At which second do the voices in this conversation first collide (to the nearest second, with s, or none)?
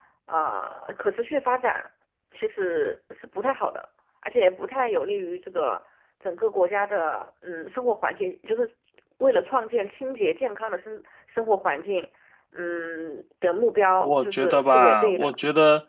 14 s